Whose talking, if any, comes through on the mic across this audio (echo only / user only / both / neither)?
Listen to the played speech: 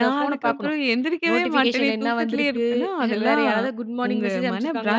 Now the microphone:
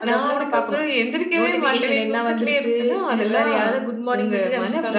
echo only